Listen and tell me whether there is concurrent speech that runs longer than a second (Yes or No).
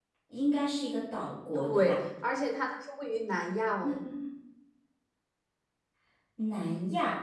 No